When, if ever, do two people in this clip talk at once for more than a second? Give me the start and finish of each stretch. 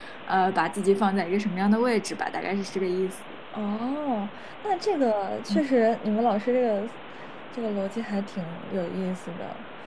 none

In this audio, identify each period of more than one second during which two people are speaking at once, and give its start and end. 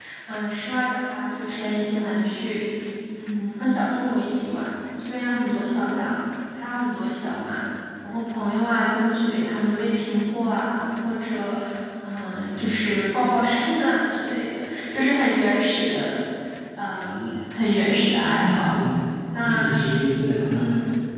none

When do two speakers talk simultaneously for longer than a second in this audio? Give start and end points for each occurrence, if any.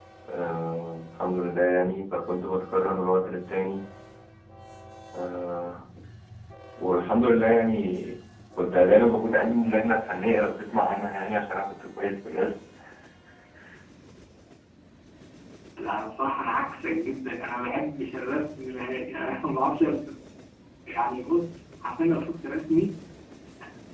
none

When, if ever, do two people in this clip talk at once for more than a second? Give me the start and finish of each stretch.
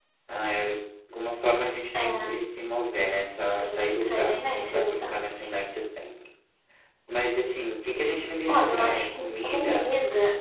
3.6-5.5, 8.5-9.9

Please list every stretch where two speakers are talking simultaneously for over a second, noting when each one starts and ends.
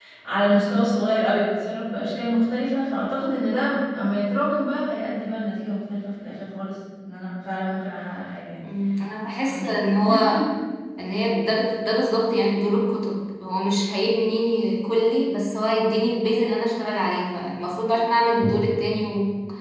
none

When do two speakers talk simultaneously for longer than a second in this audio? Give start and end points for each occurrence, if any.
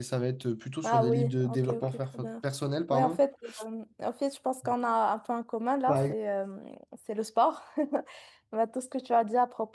0.8-2.3

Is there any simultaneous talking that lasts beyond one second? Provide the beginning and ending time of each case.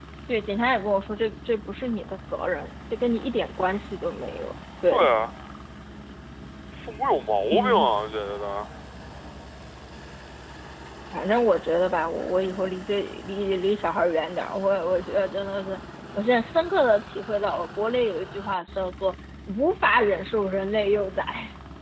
none

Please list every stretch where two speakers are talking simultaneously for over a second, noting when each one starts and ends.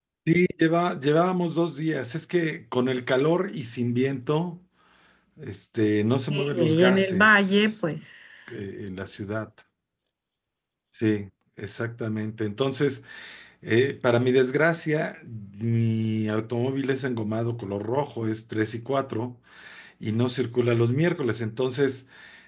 6.3-7.7

